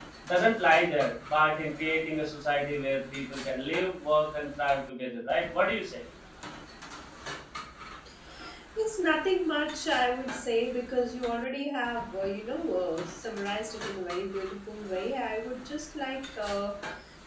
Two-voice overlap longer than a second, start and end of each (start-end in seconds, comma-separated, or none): none